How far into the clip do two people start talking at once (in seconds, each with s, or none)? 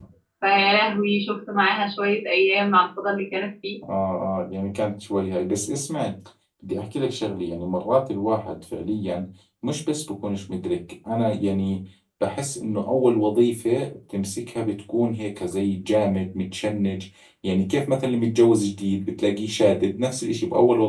none